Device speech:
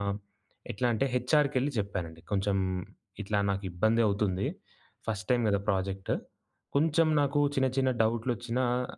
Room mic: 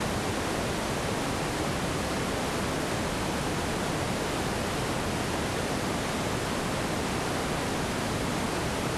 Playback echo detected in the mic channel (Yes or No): No